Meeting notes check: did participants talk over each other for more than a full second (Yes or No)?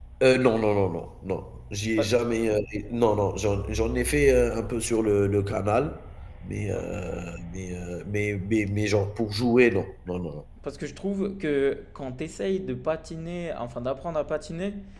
No